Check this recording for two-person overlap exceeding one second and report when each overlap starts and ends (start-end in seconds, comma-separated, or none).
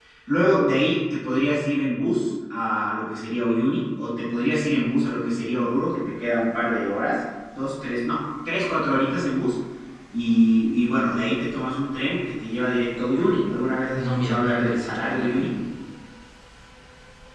14.0-15.6